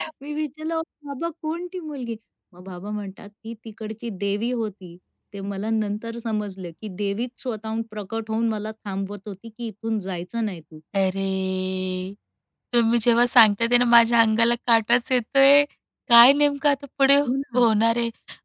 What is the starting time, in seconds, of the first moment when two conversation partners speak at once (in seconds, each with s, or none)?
none